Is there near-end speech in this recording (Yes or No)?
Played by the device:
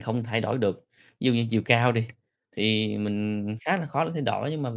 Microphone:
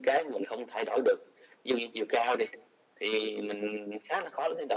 No